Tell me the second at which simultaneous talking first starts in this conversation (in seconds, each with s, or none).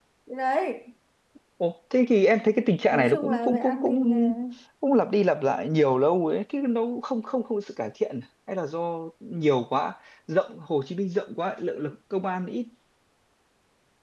2.9 s